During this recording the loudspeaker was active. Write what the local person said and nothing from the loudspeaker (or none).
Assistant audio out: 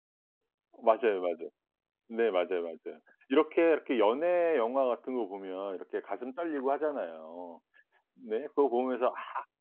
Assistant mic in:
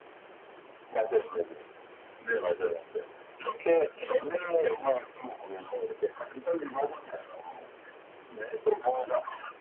none